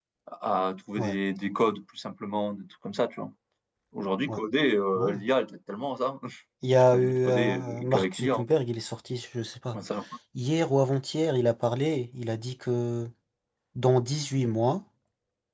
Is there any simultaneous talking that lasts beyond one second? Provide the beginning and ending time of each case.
6.9-8.4

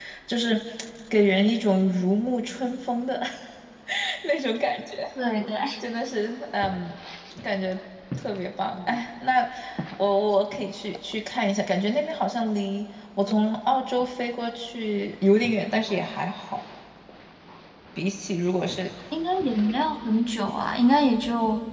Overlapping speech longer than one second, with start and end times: none

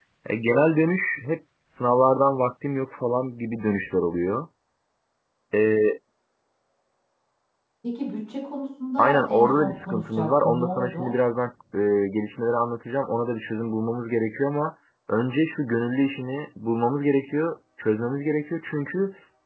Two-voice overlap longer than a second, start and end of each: 9.0-11.1

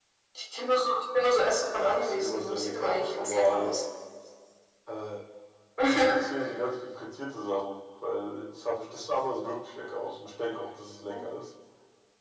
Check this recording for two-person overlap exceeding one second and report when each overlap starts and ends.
1.8-3.7

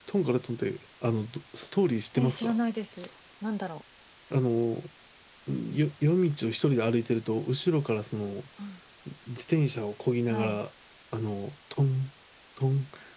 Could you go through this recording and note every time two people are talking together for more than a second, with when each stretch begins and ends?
none

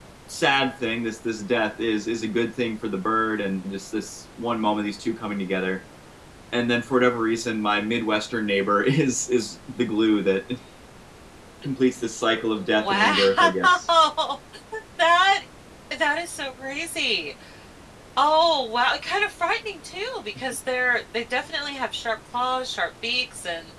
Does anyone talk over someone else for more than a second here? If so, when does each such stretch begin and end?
12.6-13.8

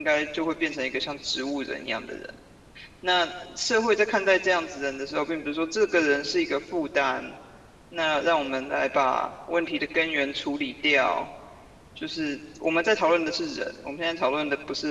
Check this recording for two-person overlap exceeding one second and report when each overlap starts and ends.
none

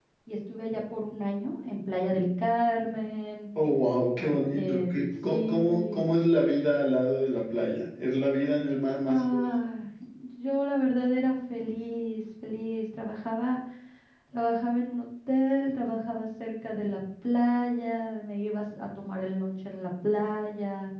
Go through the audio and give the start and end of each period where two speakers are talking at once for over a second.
4.2-6.1

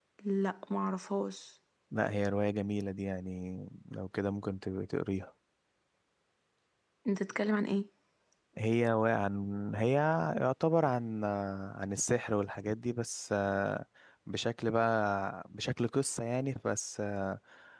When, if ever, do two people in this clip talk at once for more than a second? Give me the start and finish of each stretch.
none

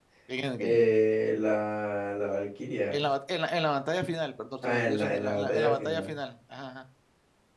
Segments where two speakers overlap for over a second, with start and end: 4.6-6.1

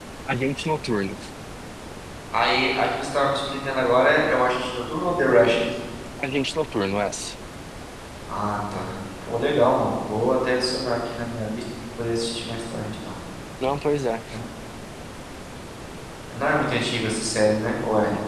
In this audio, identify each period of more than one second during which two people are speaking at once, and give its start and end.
none

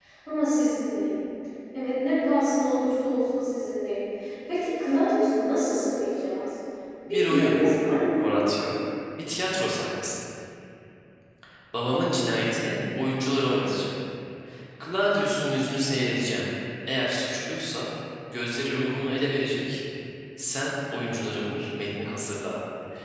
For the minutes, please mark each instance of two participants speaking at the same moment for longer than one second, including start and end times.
none

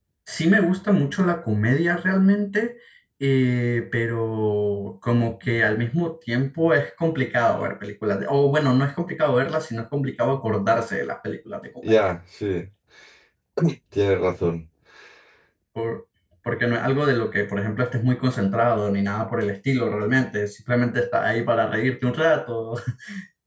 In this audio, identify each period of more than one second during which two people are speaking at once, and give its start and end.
none

